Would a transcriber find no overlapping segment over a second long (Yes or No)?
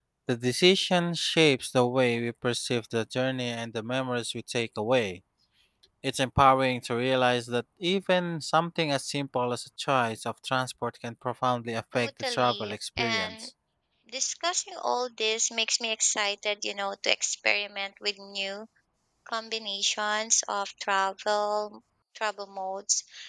No